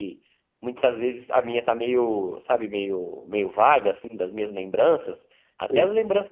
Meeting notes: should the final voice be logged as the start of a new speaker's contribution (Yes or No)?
No